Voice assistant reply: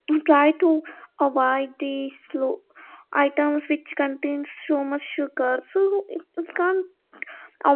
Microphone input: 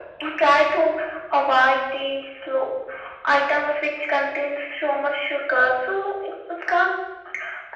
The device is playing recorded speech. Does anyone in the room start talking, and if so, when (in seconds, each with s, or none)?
none